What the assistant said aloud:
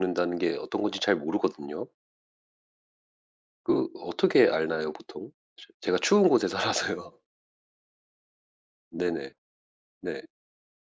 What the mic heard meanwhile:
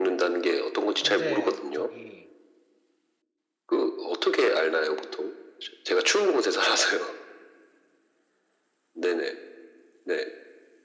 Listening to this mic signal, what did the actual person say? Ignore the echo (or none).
언제 저기